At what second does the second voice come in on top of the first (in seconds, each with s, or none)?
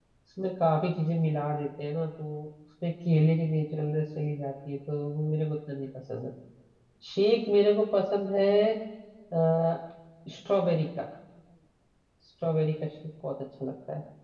none